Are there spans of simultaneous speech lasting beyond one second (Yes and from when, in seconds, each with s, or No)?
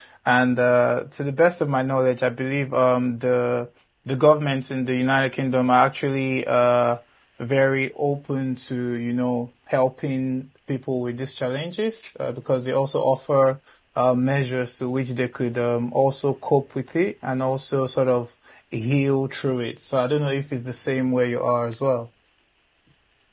No